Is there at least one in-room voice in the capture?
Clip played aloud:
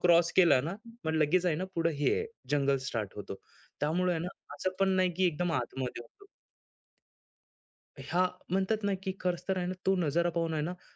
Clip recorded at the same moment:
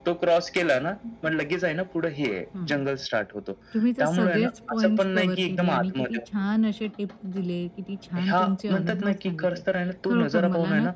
Yes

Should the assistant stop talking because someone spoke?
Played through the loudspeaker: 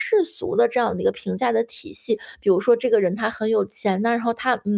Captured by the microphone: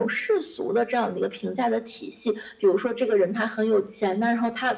No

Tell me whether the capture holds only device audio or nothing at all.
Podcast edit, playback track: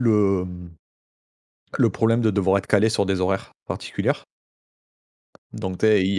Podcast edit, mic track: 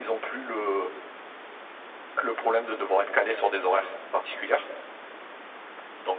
Yes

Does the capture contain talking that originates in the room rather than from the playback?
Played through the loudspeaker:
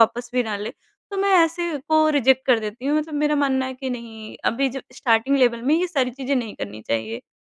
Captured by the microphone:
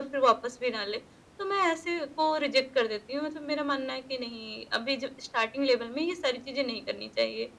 No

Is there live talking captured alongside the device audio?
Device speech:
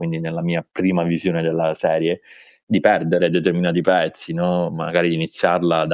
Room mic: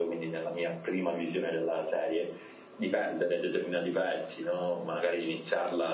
No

